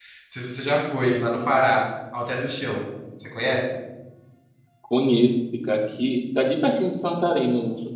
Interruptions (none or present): none